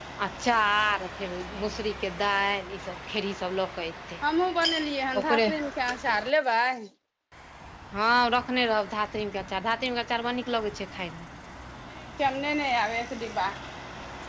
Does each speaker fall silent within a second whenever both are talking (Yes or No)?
Yes